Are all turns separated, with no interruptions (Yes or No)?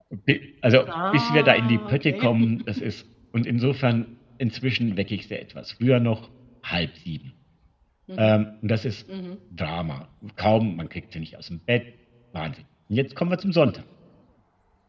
No